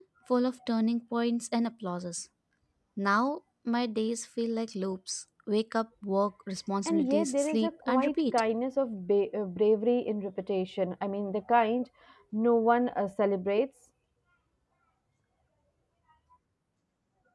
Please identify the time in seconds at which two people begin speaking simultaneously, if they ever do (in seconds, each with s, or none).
6.8 s